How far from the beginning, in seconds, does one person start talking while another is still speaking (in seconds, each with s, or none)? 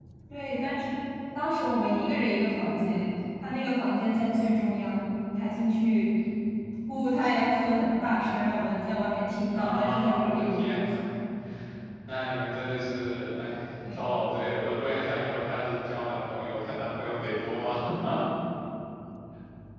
9.5 s